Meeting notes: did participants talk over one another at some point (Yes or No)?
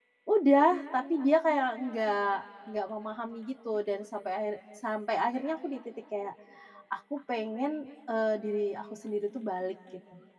No